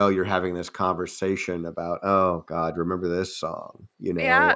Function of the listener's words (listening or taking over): taking over